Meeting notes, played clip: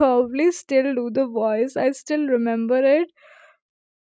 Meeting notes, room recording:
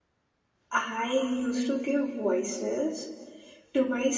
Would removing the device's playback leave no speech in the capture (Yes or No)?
No